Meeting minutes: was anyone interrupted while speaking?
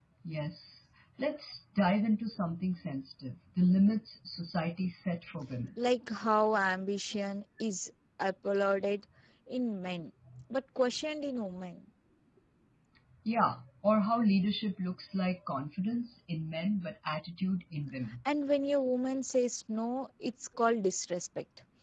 No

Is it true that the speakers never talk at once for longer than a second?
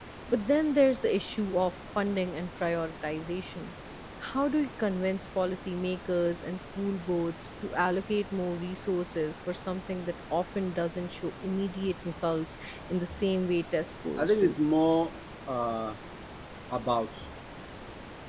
Yes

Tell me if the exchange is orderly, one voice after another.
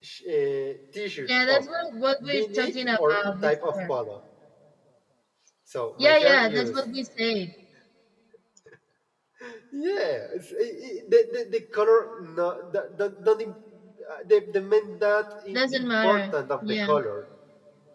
No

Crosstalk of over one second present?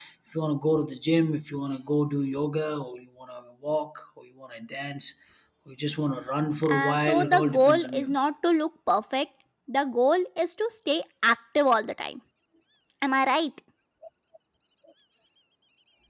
Yes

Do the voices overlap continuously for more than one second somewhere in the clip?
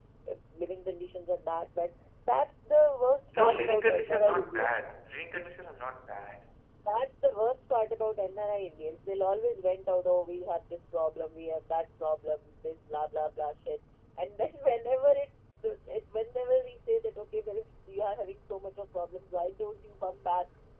Yes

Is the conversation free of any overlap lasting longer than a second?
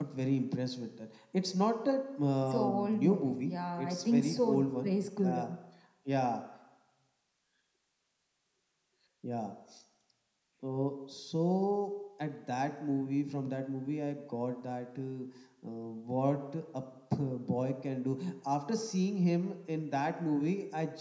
No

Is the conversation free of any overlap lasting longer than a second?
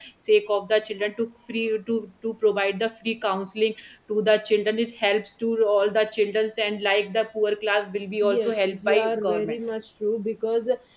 No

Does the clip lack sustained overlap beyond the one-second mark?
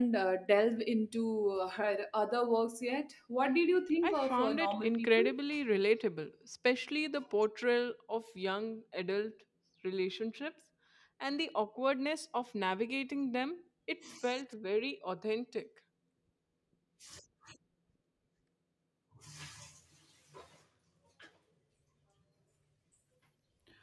No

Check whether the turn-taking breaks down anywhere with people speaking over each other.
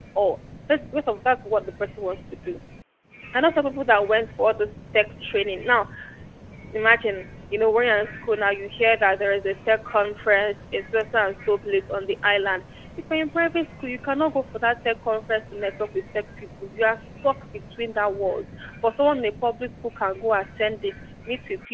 No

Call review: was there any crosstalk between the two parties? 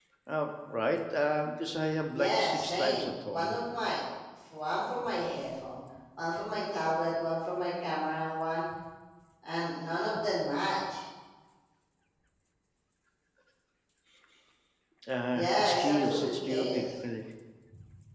Yes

